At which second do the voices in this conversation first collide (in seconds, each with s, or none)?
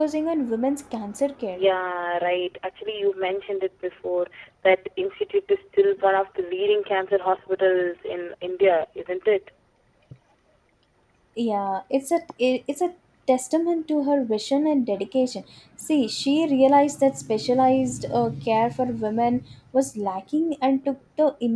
none